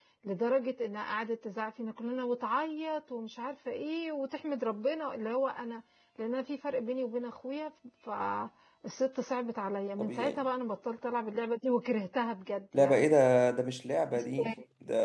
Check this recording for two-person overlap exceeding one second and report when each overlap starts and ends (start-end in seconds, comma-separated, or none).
none